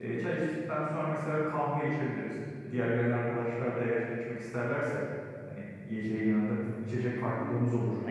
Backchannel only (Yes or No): No